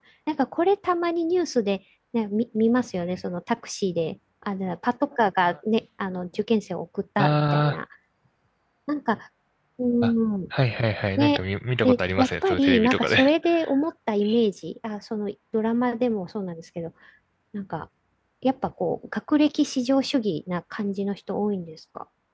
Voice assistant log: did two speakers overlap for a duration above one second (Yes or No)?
Yes